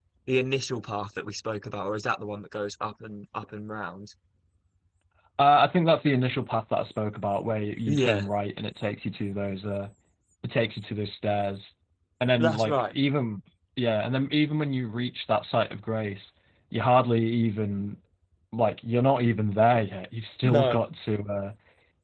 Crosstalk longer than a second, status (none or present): none